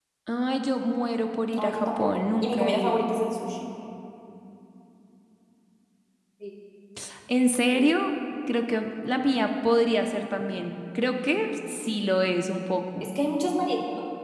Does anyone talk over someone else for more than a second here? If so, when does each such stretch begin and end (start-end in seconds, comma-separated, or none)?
1.6-3.1